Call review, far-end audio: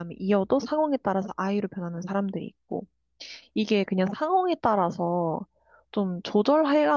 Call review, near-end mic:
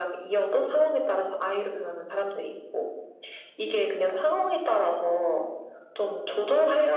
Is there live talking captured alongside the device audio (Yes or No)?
No